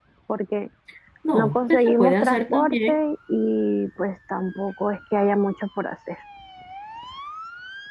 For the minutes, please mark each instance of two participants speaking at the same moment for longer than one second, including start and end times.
1.3-3.0

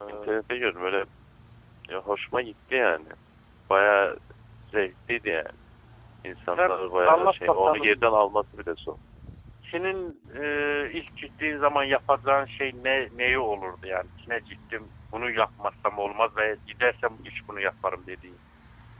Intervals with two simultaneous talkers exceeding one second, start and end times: 6.5-8.0

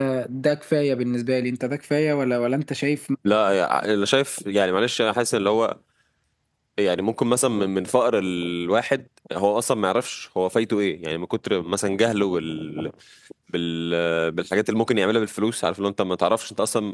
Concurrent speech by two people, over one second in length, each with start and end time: none

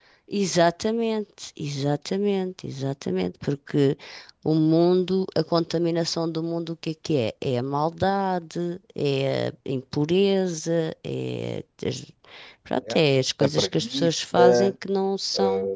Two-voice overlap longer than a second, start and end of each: 13.4-14.7

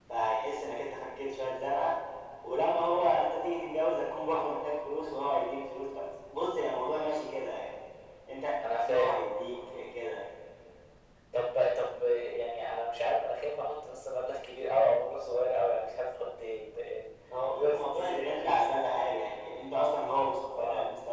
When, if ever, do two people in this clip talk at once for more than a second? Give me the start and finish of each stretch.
17.5-18.8

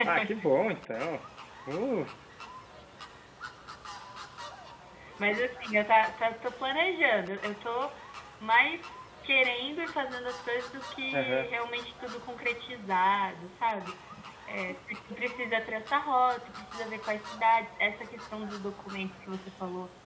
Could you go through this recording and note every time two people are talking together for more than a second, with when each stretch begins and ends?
none

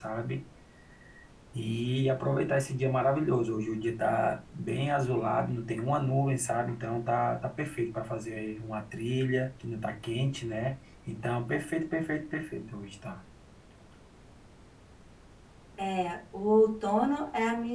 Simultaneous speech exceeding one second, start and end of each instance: none

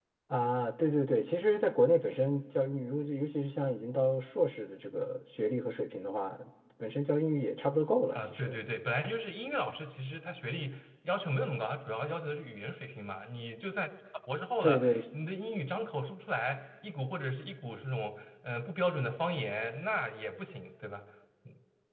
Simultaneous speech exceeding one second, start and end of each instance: none

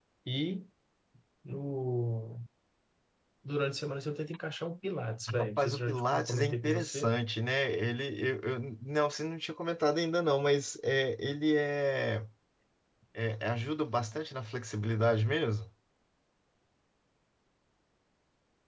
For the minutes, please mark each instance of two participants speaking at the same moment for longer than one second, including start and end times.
5.4-7.1

